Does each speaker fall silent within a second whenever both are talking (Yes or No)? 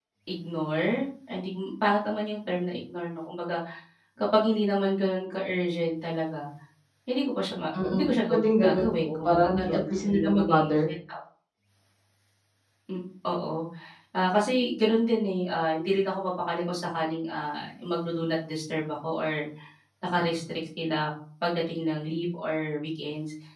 No